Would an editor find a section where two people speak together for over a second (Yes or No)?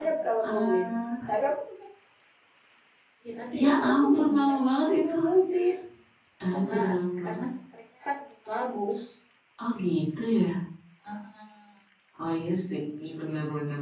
Yes